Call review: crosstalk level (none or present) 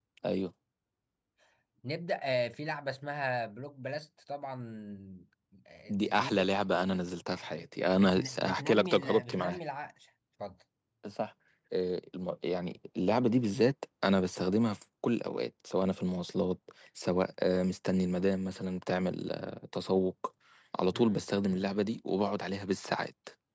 present